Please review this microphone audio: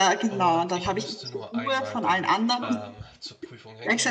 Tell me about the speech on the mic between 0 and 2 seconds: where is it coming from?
both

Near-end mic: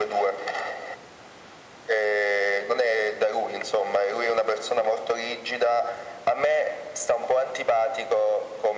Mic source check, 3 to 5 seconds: echo only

